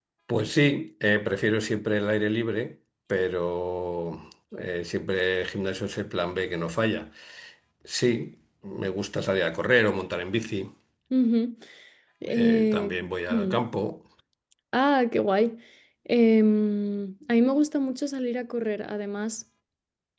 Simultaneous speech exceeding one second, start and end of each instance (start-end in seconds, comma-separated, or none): 12.4-13.6